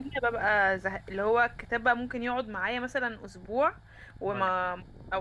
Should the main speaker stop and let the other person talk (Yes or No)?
No